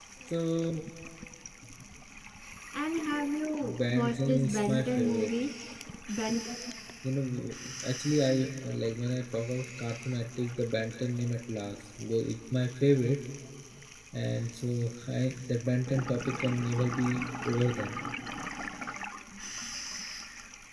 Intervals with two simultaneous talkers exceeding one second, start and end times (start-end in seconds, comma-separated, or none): 3.6-5.3